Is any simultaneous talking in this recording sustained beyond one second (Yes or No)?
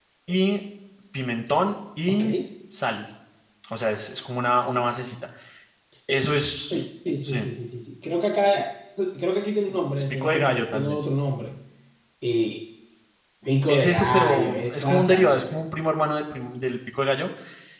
Yes